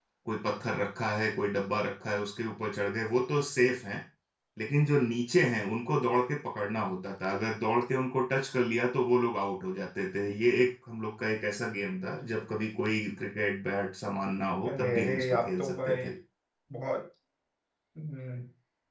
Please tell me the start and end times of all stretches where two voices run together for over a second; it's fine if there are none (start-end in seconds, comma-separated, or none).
14.7-16.1